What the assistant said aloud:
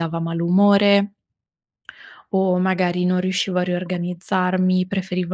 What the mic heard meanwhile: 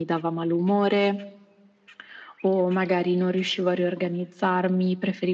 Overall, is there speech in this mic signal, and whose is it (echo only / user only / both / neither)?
echo only